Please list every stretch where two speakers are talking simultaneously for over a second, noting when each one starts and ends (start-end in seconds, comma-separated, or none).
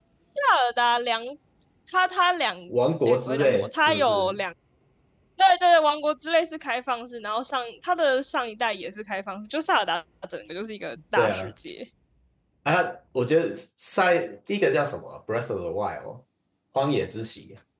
3.1-4.4